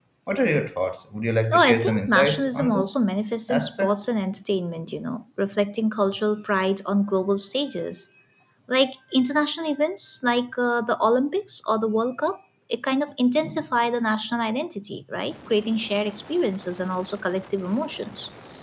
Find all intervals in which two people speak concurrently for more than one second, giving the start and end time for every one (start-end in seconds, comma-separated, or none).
1.5-3.0